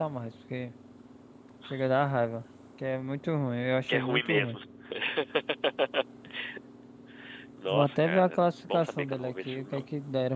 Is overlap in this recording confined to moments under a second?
No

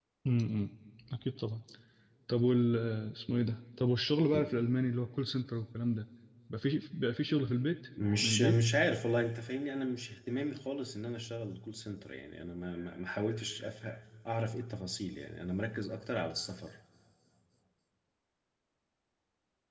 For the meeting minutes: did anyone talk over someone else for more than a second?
No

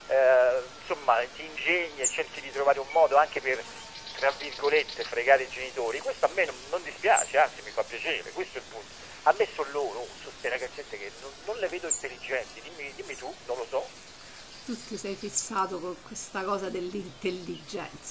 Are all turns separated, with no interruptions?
Yes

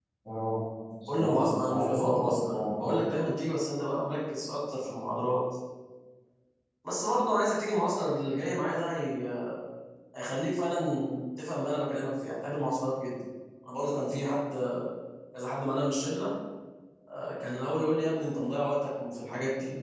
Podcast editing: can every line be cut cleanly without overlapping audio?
No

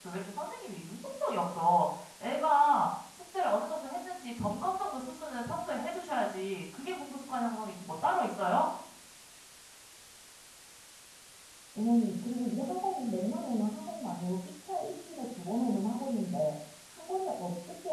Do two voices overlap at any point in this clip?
No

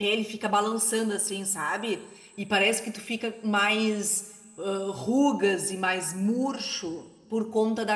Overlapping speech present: No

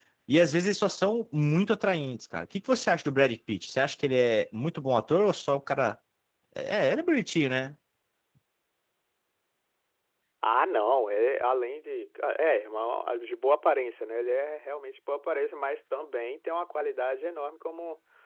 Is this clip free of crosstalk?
Yes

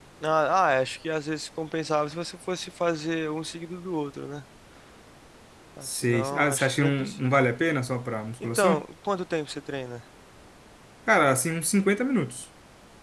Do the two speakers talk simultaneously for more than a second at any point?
Yes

